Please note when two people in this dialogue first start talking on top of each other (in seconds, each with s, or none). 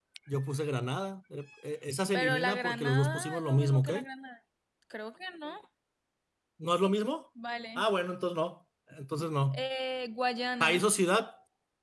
2.1 s